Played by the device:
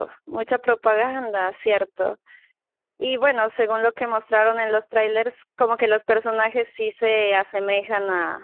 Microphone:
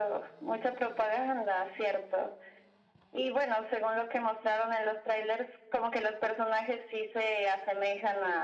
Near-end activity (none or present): none